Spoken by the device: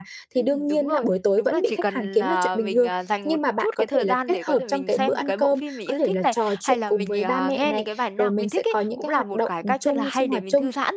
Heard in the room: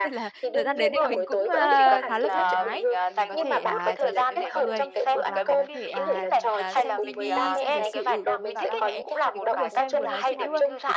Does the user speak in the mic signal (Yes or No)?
Yes